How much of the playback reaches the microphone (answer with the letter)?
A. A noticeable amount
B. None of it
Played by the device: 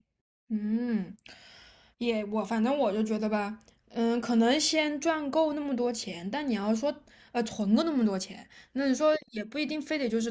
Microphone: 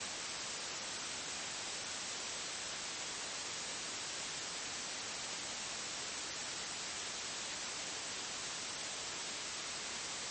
B